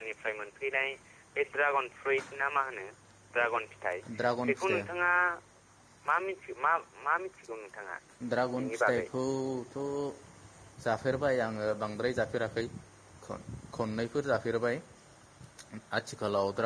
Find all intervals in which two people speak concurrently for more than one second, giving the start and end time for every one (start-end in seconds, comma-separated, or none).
none